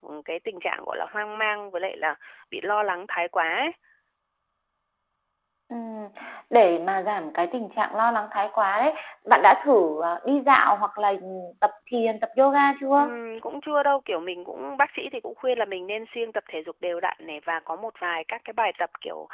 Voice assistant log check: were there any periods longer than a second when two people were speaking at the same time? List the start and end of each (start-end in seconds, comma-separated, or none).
none